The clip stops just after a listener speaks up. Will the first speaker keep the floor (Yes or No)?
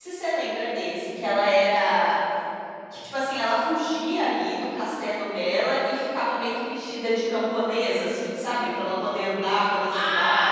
No